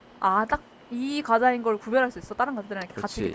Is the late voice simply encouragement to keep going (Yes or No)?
No